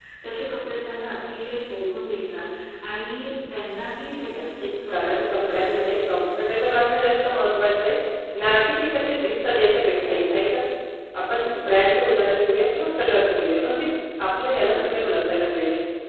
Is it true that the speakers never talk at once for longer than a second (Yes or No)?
No